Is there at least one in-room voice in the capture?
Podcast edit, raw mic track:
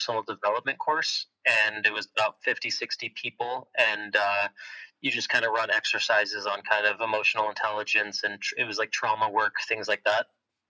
No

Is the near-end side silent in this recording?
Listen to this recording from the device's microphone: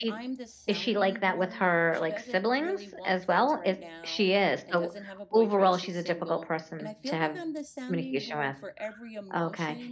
No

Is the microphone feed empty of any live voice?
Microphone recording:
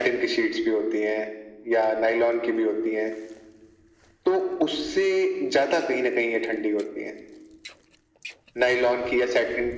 Yes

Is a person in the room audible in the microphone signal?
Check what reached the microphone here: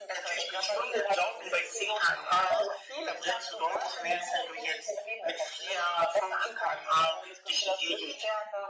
No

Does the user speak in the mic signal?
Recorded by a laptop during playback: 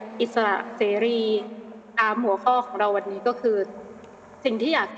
No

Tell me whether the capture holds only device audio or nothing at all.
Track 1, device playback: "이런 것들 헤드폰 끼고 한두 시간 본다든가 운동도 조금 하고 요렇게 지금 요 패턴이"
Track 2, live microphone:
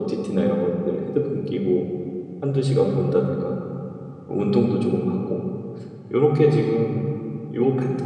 Yes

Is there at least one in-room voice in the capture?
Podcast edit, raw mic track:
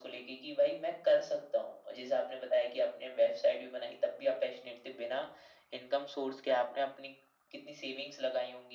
No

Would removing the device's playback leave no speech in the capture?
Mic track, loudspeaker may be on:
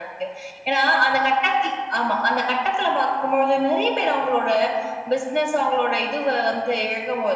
Yes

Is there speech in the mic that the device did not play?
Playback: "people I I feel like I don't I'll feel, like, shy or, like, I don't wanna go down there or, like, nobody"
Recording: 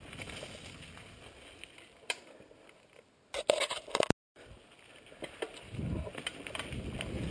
No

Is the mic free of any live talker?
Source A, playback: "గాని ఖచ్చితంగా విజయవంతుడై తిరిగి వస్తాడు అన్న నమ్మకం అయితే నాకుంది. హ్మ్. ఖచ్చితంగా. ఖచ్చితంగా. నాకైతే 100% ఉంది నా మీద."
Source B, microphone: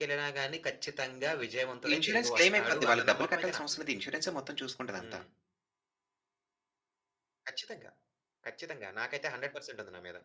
No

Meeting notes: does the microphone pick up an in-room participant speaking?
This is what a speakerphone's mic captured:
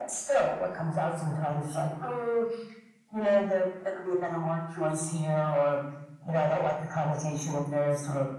No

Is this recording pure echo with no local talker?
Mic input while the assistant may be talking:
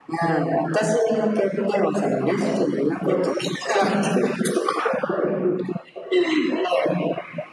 Yes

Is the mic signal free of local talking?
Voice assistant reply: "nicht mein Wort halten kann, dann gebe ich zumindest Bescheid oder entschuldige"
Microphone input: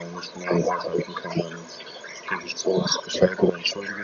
Yes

